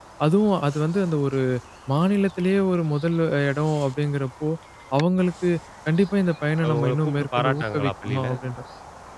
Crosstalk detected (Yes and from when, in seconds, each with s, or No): Yes, from 6.7 s